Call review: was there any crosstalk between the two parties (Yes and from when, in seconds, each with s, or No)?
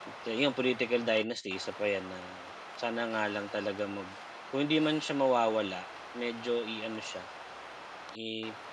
No